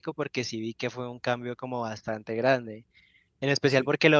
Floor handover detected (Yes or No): No